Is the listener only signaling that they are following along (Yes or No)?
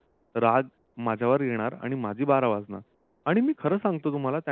Yes